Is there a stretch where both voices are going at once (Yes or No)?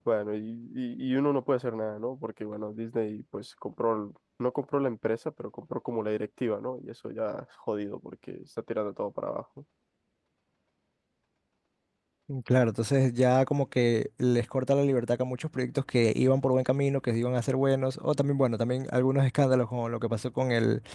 No